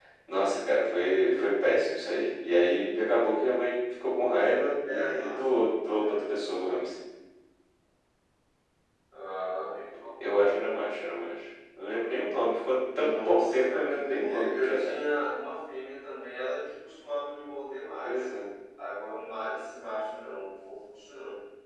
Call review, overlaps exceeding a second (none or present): present